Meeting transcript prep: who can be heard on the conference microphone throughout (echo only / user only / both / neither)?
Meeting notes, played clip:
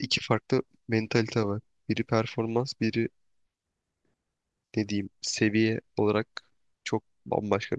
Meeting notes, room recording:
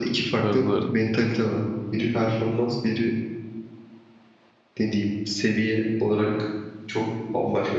both